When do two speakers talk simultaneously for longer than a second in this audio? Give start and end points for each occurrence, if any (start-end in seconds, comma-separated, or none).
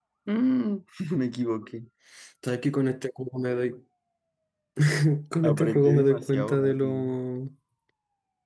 5.4-7.0